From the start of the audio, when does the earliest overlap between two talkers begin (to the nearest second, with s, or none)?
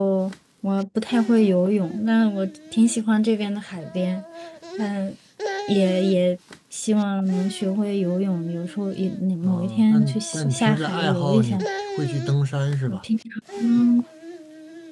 9 s